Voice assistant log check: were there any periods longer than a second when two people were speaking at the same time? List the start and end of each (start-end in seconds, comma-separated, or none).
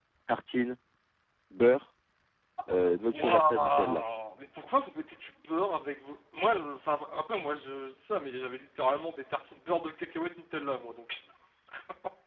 2.7-4.0